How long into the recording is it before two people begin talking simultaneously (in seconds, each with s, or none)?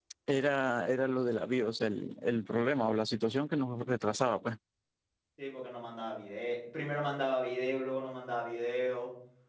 none